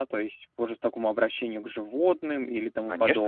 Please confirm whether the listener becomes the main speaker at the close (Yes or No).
Yes